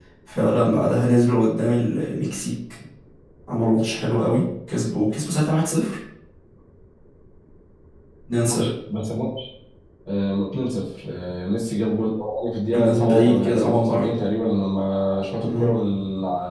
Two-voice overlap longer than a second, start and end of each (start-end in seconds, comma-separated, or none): 12.7-14.1